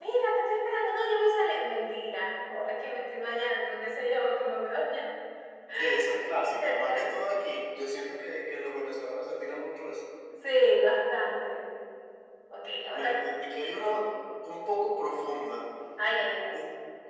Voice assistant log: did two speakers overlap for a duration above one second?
No

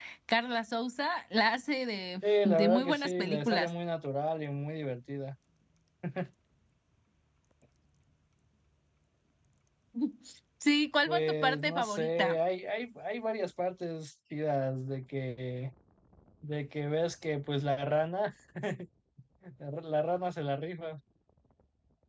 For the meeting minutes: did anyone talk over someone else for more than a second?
Yes, from 2.4 s

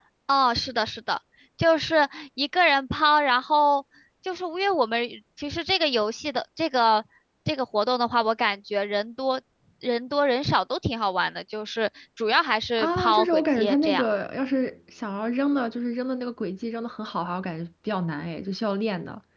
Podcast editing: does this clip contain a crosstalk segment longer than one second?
Yes, from 12.8 s

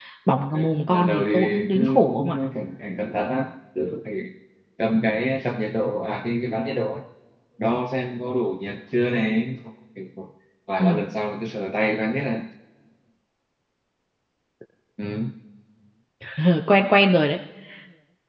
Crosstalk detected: Yes, from 0.5 s

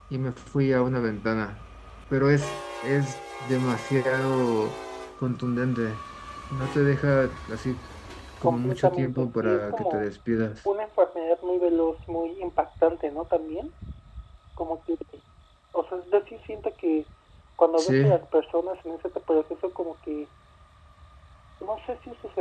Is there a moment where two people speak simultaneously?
Yes, from 8.4 s

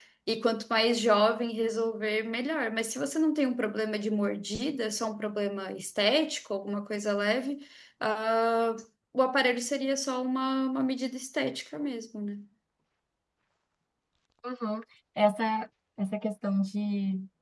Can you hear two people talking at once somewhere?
No

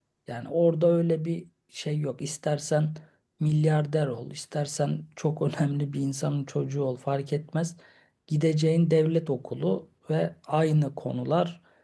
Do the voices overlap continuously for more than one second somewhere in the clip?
No

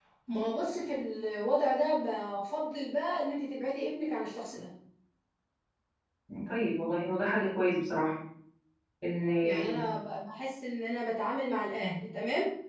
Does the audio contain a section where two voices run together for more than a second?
No

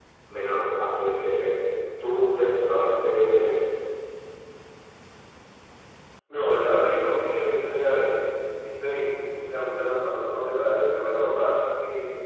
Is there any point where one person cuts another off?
No

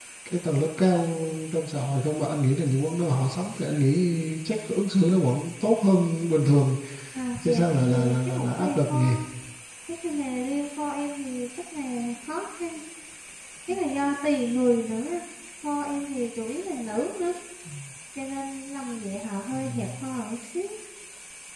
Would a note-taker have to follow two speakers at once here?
Yes, from 7.4 s

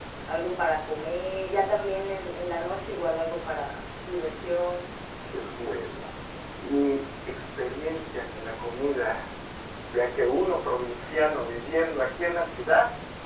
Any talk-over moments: No

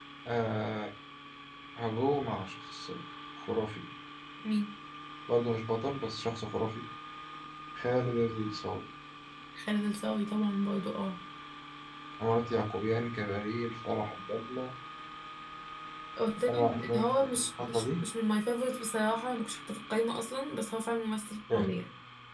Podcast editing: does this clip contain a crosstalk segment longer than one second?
Yes, from 16.5 s

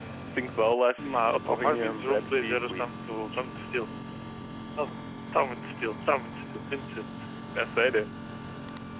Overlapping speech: Yes, from 1.5 s

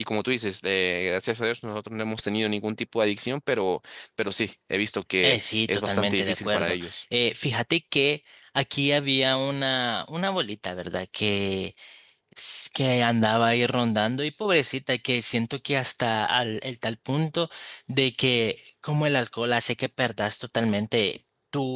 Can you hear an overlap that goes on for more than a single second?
Yes, from 5.2 s

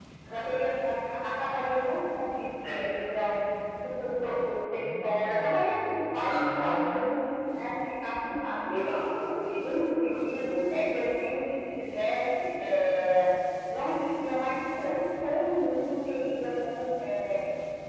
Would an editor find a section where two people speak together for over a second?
No

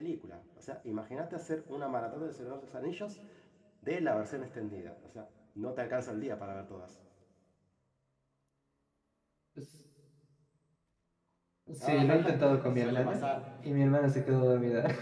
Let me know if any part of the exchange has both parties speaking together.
Yes, from 11.8 s

